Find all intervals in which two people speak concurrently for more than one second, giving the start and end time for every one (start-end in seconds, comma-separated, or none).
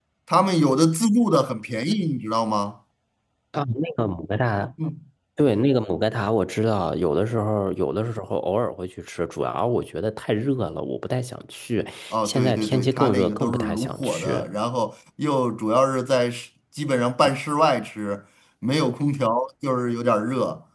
12.2-14.4